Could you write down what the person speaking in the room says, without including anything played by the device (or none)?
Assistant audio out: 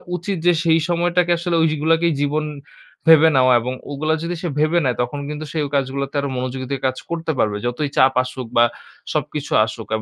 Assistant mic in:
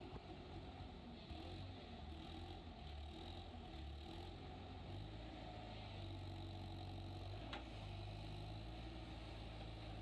none